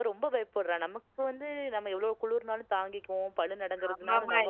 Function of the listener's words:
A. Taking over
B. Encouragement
A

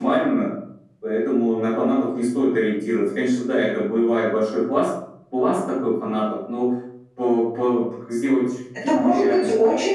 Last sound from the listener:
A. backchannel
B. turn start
B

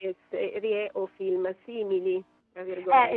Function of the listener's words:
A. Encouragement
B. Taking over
B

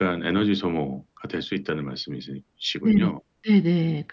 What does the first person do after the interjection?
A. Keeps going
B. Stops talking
B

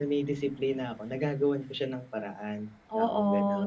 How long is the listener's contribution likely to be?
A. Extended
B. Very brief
A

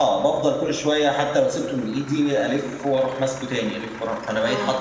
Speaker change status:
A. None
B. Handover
B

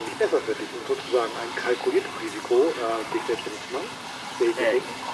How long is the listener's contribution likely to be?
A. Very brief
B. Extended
B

